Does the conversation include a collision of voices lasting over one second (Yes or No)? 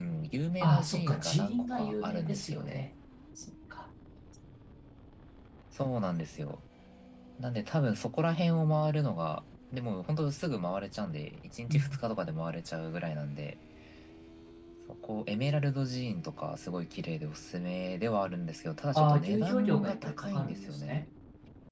Yes